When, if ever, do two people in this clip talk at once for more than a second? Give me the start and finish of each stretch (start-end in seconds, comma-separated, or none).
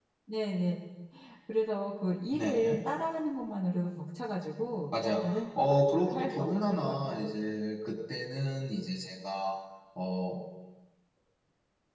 5.9-7.3